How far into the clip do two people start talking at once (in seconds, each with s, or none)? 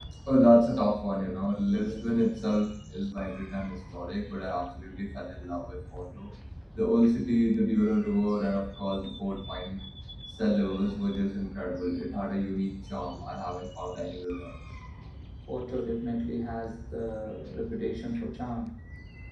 none